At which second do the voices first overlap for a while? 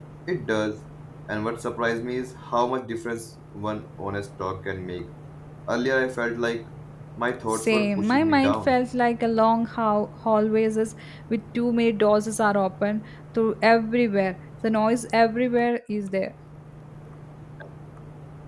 7.5 s

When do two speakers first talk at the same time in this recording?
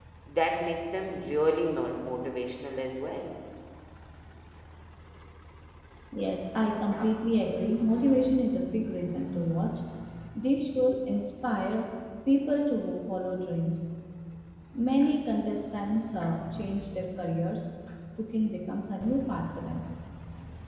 none

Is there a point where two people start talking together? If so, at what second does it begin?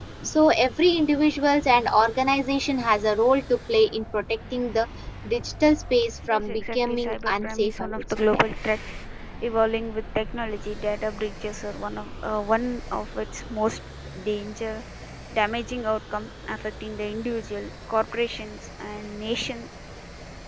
6.2 s

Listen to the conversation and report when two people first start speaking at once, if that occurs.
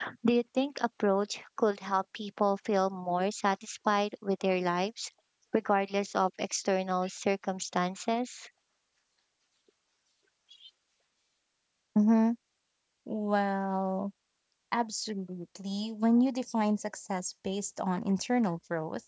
none

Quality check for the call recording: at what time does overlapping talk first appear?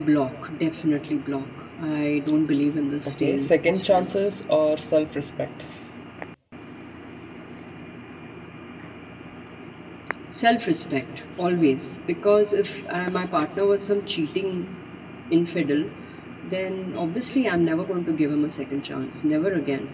3.0 s

